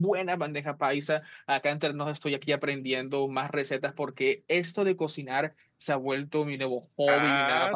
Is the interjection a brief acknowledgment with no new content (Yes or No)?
No